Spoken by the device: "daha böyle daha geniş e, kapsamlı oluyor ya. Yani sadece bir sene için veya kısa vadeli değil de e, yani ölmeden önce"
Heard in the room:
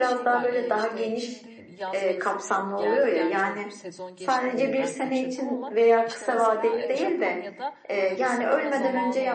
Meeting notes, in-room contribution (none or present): present